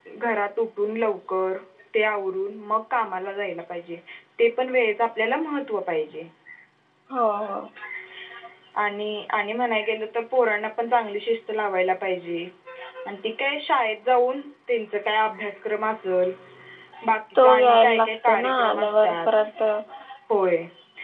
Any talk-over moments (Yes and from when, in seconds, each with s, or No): Yes, from 17.4 s